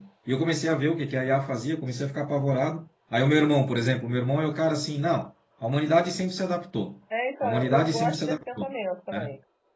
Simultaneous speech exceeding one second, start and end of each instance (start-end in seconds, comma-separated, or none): 7.4-8.7